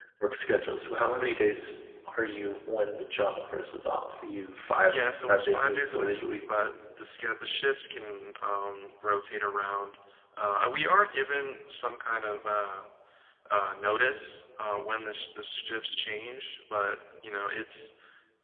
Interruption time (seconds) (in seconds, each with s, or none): 4.8 s